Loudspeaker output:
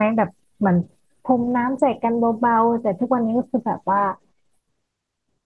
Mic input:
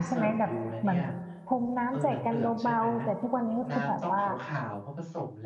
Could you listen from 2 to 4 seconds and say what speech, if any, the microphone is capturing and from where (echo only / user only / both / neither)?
both